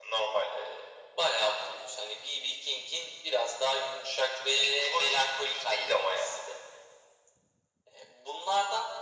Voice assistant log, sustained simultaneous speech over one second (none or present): present